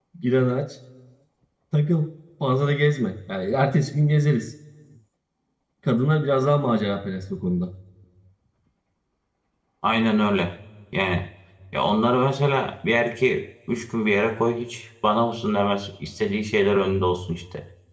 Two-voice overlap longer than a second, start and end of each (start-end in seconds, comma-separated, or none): none